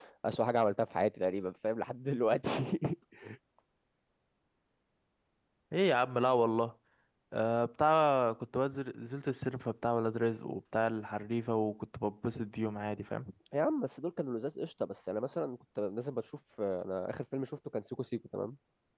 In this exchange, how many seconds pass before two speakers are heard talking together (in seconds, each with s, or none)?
none